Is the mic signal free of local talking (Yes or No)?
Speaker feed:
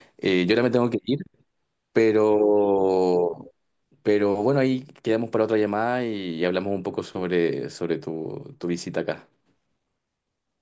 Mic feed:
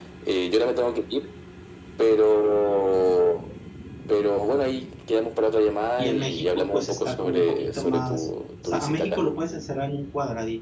No